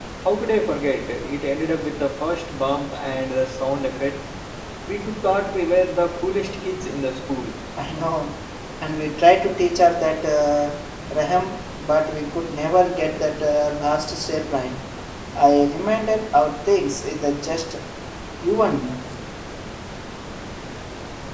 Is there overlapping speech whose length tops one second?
No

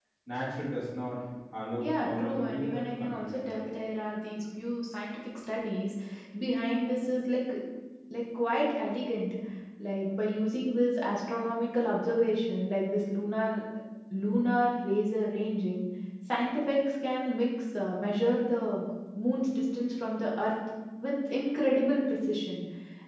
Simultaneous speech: Yes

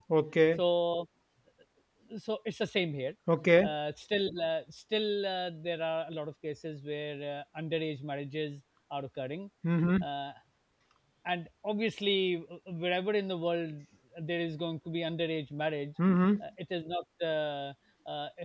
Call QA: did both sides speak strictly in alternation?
Yes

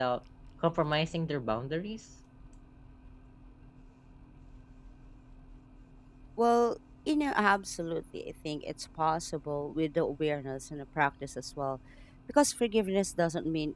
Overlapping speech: No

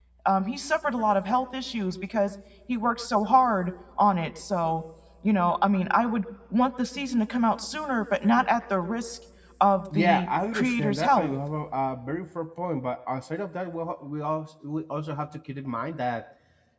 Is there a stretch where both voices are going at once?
Yes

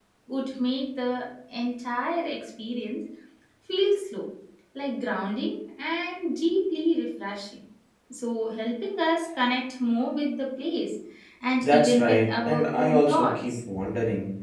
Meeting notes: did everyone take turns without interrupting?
No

